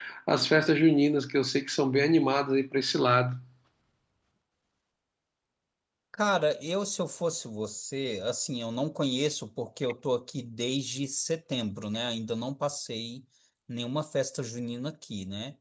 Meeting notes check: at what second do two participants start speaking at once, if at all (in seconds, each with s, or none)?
none